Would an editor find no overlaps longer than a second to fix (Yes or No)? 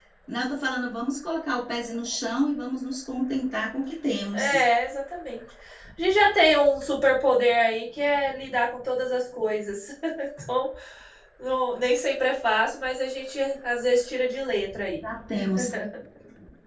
Yes